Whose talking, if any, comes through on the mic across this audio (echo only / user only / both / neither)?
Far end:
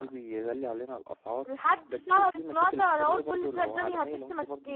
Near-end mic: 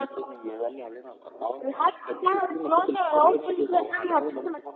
echo only